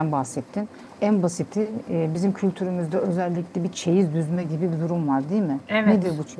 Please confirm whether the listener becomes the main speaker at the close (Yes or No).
No